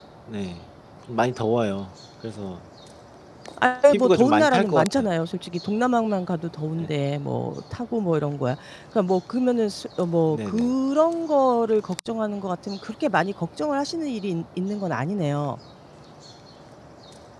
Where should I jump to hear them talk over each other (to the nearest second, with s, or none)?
4 s